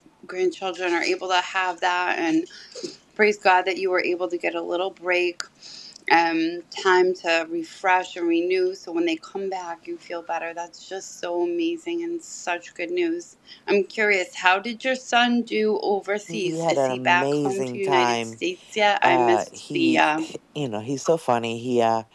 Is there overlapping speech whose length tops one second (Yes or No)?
Yes